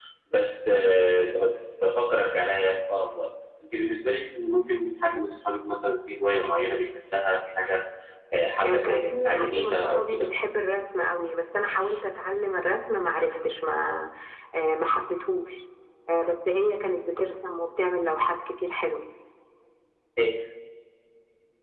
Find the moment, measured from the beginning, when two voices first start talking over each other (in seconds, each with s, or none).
8.6 s